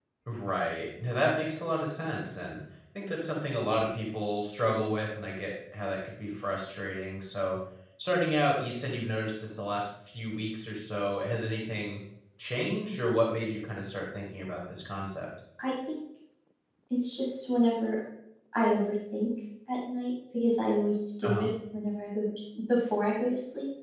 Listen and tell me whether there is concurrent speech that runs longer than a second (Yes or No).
No